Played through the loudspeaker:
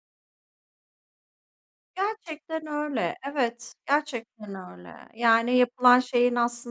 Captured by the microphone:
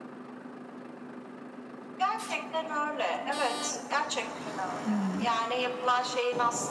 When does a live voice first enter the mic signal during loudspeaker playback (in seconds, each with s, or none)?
4.8 s